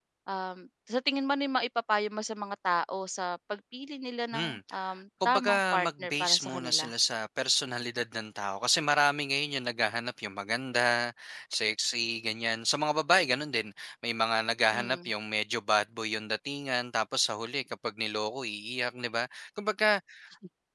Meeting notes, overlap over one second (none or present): present